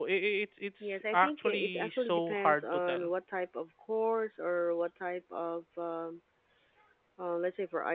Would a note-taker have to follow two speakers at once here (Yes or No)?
Yes